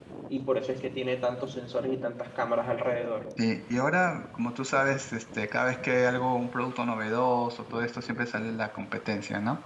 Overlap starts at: none

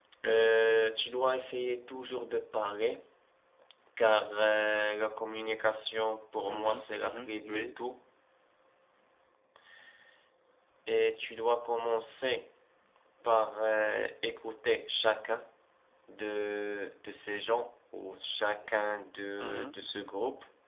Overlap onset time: 6.5 s

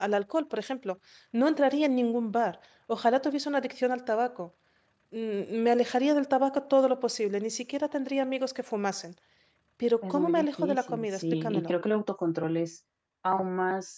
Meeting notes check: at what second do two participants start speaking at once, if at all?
10.0 s

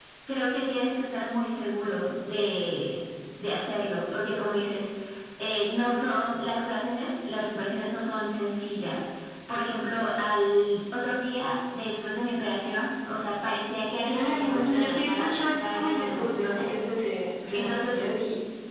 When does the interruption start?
14.0 s

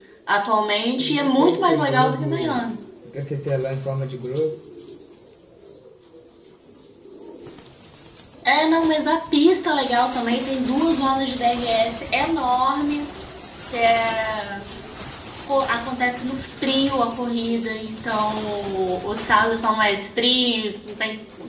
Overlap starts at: 1.0 s

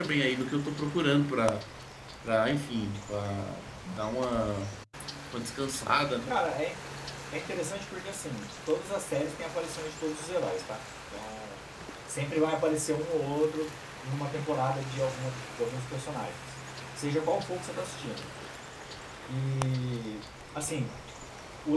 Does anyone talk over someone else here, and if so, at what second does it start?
none

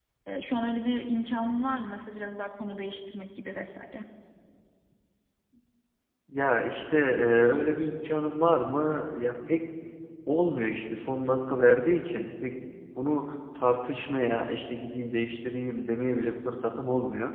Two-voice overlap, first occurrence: none

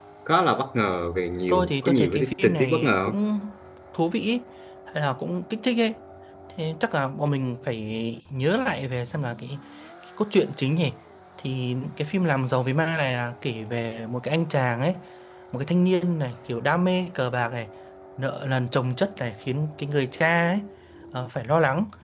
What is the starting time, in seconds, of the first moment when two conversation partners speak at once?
1.5 s

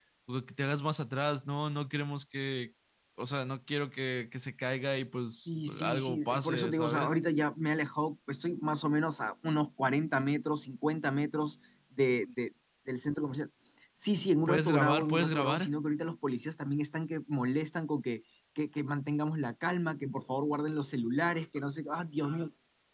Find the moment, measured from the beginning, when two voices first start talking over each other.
5.5 s

